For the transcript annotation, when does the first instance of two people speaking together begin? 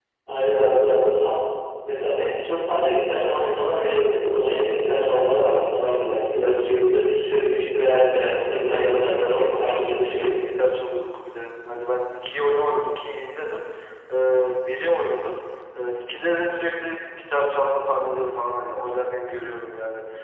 8.4 s

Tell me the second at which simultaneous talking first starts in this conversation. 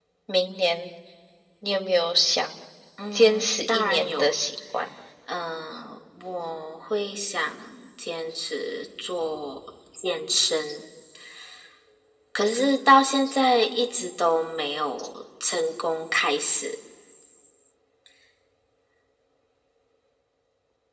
3.1 s

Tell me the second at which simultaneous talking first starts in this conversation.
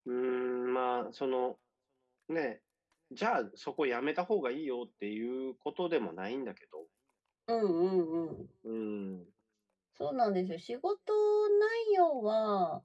none

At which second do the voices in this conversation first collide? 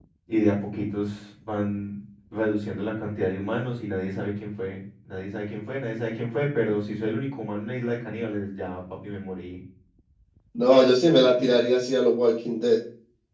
none

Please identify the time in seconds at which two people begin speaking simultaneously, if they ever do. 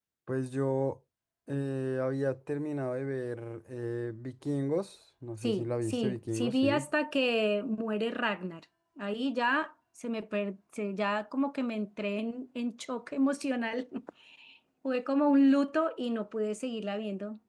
5.4 s

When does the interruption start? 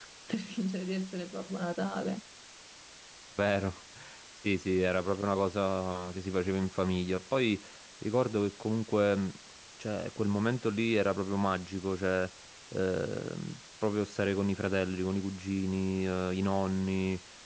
none

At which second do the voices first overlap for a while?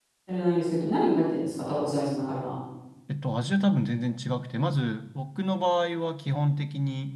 none

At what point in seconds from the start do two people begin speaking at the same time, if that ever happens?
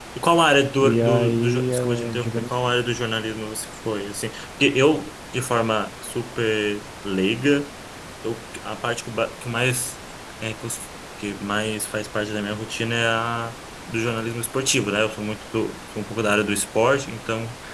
0.8 s

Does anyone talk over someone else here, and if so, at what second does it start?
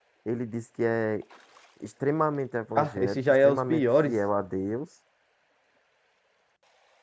2.7 s

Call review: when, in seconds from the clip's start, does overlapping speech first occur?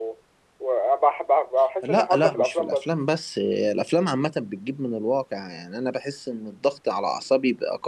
1.8 s

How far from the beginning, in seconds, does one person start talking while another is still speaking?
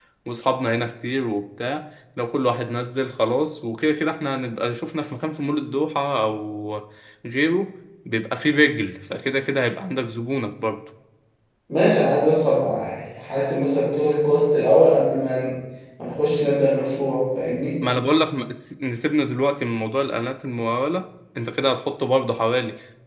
none

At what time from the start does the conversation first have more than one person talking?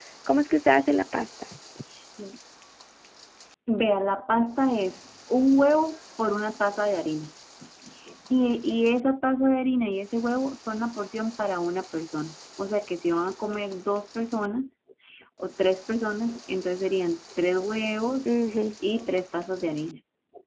none

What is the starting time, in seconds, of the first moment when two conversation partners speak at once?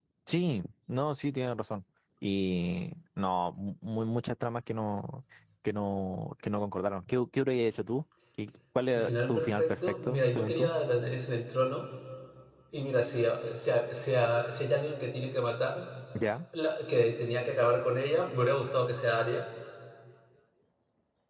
8.9 s

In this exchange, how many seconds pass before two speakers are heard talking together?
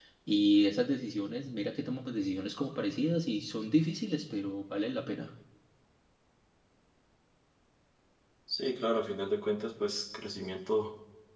none

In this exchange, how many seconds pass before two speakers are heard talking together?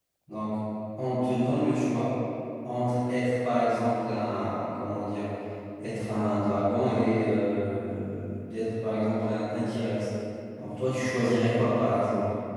none

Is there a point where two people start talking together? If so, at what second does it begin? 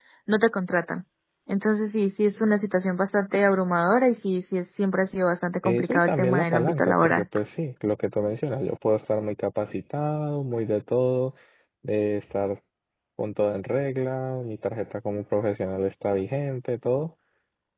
5.7 s

